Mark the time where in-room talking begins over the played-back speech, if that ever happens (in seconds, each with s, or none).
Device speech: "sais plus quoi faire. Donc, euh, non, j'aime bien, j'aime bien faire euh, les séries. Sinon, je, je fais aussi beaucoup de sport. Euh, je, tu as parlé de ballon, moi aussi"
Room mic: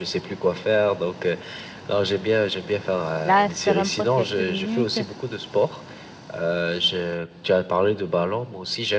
3.2 s